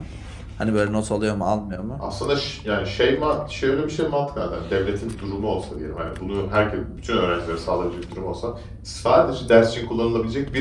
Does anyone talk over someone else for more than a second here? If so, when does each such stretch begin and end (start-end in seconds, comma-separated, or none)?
none